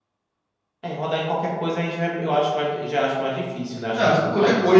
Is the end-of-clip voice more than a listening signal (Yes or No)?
Yes